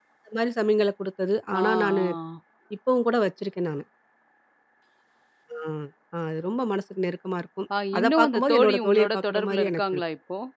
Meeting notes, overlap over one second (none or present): present